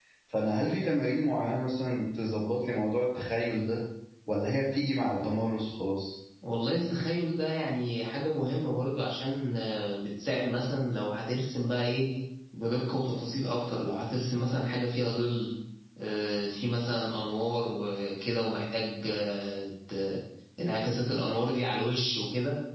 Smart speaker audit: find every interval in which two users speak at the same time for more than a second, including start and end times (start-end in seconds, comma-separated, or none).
none